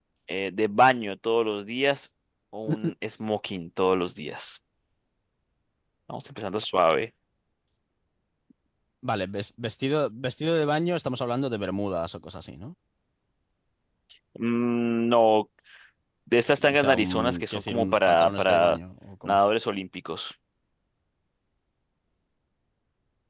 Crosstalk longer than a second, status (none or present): present